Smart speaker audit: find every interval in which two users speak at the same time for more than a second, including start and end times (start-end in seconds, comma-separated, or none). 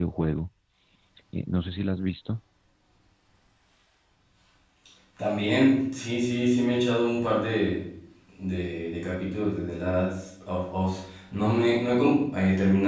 none